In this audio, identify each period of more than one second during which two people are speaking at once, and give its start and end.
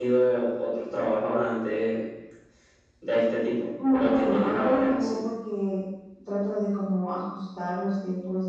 3.9-5.2

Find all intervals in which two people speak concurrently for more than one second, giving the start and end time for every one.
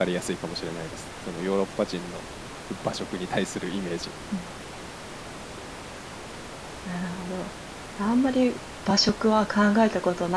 none

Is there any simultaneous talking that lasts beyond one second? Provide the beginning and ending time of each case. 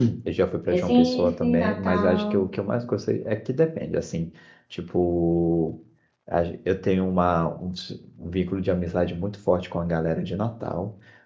0.7-2.5

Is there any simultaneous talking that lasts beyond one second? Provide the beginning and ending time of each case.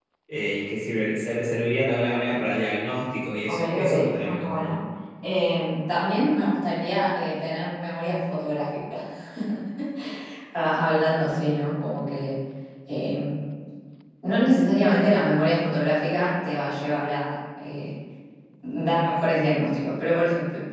3.5-4.7

